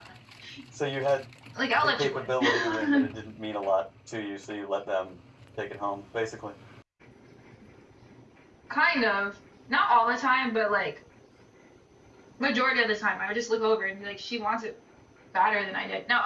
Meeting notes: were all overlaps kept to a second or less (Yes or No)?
No